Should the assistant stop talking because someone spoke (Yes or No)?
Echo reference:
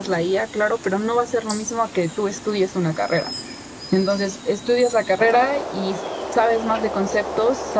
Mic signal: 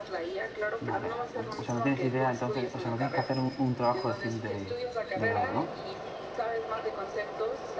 Yes